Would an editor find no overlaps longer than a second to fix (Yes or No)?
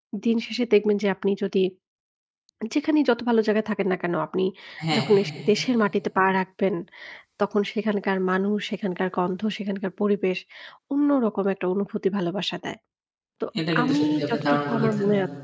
No